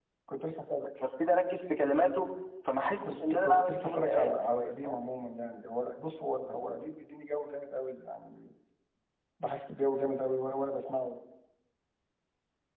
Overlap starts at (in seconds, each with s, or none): 3.0 s